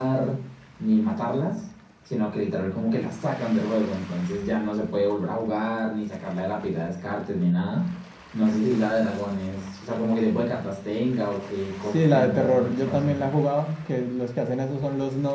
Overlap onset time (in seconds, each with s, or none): 11.9 s